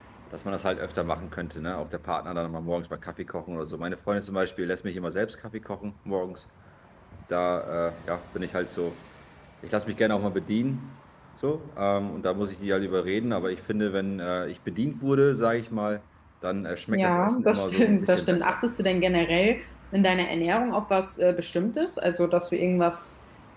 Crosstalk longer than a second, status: present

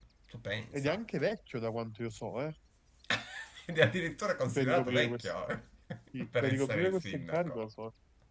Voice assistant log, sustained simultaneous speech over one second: present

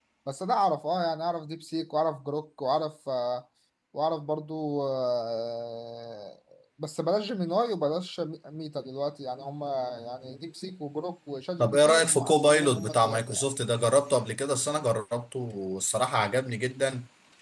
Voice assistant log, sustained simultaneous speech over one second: present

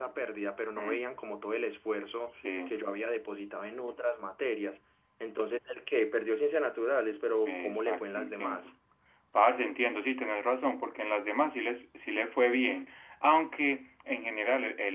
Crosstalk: present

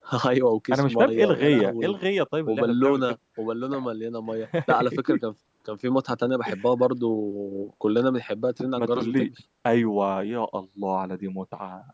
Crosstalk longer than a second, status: present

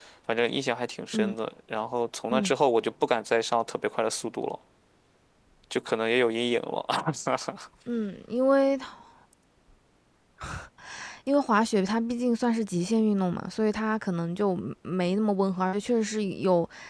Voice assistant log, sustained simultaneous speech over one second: none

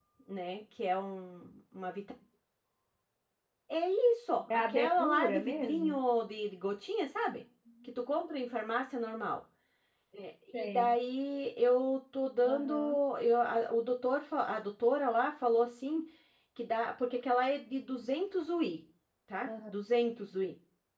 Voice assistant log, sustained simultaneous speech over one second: present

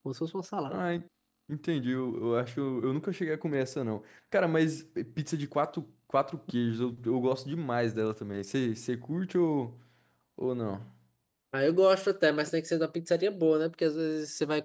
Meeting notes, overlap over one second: none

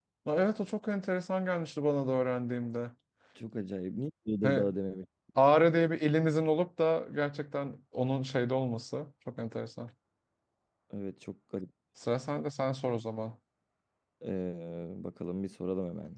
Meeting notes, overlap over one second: none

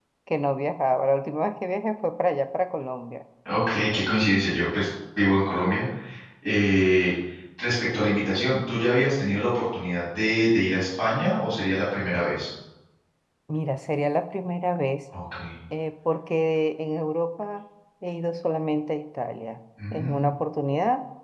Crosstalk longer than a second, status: none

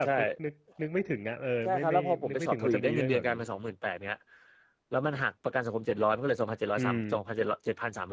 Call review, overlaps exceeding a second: present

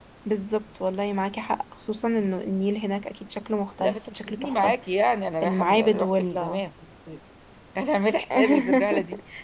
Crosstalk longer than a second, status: present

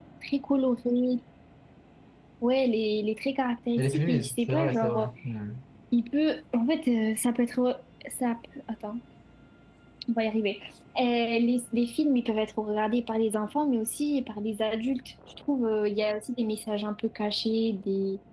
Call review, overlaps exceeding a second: present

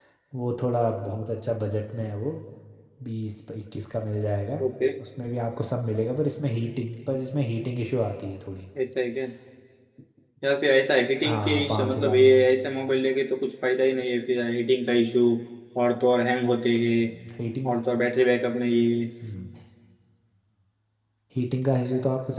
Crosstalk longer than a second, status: present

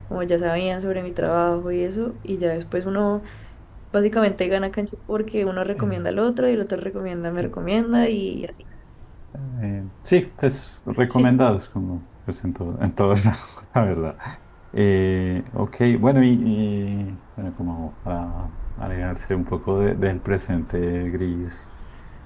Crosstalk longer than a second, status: none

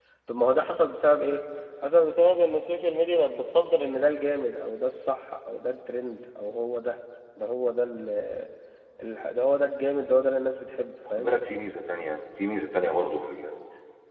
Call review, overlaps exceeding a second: none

